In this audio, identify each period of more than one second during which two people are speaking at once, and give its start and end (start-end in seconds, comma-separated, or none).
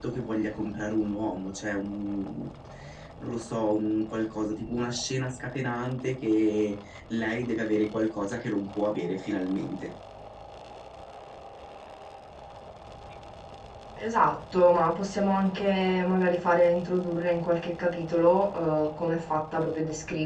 none